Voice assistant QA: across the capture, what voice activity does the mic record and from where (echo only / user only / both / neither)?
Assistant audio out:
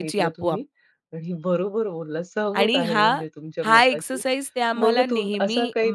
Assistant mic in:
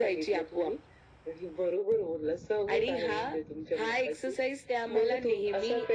echo only